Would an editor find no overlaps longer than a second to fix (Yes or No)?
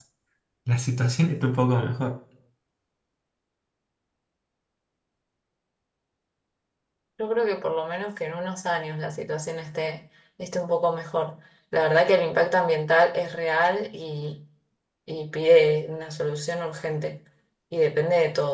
Yes